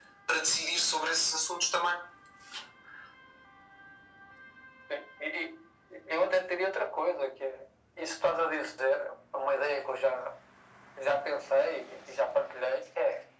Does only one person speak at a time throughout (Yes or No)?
Yes